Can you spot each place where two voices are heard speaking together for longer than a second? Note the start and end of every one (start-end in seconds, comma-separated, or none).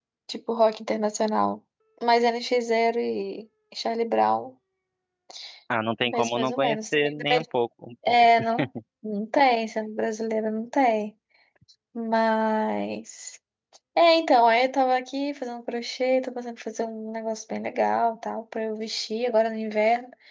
6.1-7.4